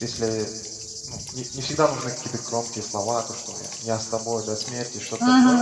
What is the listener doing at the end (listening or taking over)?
listening